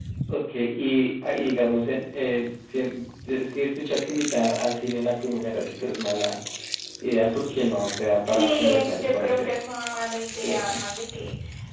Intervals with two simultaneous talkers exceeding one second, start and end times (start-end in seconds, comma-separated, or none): 8.2-9.6